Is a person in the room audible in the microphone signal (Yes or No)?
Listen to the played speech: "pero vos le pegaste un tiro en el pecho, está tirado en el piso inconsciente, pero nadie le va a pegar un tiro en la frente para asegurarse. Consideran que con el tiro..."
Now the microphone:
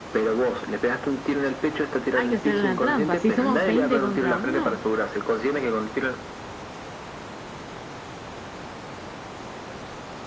Yes